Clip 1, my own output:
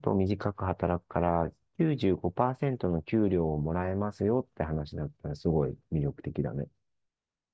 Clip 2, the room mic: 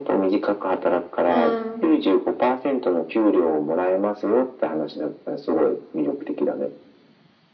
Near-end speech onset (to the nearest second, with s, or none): 1 s